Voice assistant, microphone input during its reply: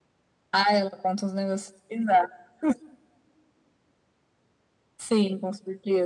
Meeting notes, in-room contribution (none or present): none